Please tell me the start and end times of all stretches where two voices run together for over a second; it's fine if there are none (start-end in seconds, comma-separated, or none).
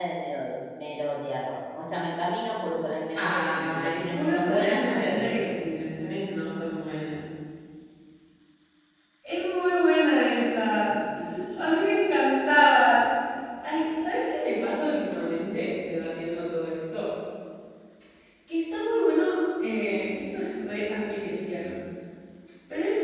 3.1-5.3